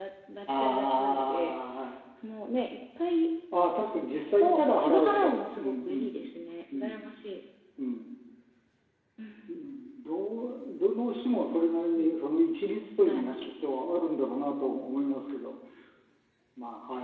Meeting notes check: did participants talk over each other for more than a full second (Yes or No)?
Yes